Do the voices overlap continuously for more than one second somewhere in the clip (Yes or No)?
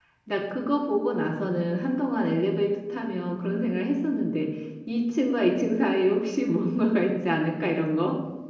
No